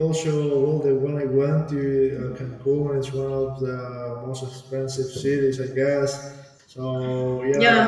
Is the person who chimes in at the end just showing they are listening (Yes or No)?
Yes